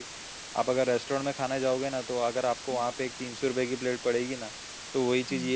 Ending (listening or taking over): listening